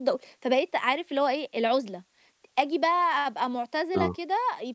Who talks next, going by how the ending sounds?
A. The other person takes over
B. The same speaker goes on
B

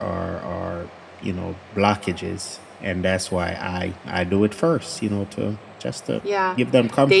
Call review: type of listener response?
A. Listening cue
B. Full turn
B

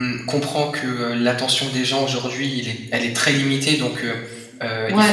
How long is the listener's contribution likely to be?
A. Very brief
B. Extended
A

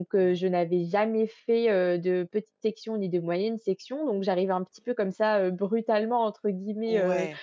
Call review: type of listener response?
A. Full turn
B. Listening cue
B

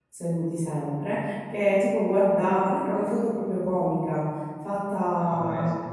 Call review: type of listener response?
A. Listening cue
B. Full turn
B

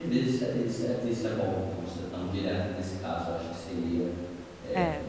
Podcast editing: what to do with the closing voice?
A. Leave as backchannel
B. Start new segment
A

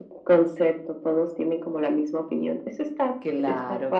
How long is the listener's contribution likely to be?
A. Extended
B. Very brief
A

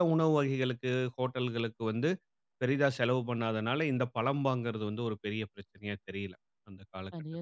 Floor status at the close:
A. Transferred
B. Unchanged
A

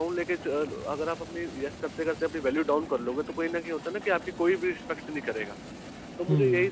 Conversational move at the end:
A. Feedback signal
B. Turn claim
A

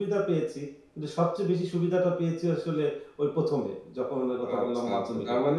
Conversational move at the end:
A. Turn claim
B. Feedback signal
A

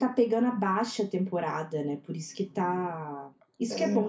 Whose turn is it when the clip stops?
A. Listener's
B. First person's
B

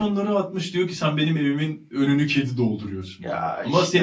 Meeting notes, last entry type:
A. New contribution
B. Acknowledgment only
B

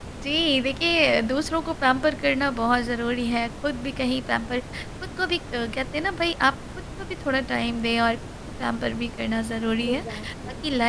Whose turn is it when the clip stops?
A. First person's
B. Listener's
A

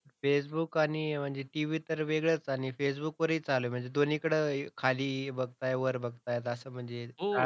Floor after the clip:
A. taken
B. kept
A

